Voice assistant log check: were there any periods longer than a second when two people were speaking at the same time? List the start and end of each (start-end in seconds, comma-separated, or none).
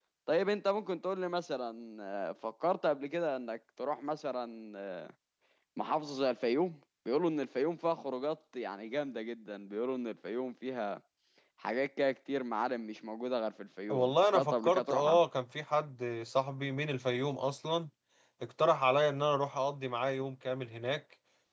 13.9-15.2